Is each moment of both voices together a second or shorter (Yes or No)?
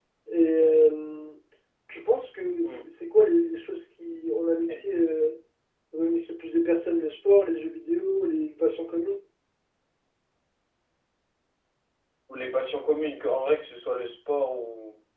Yes